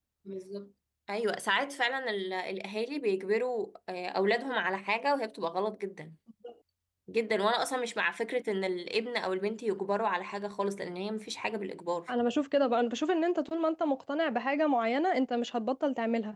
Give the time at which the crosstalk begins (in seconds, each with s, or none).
none